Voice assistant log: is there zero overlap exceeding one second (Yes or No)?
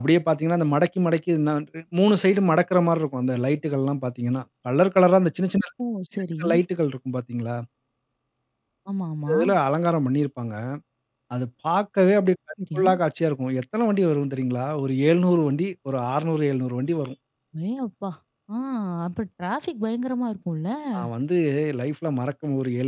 Yes